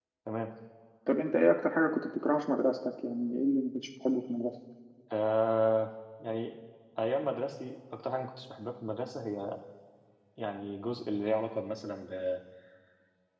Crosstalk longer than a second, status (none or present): none